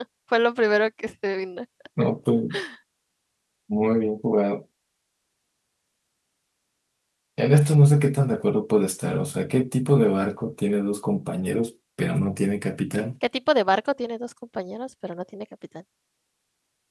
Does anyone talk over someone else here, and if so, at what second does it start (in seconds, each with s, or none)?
none